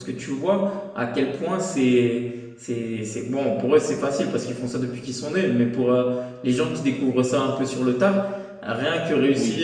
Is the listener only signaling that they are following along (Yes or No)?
Yes